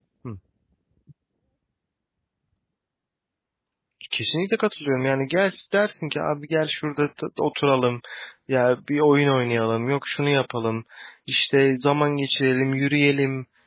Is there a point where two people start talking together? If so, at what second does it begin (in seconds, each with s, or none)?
none